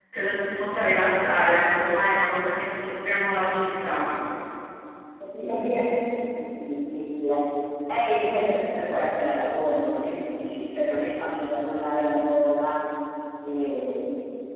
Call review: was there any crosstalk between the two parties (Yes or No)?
No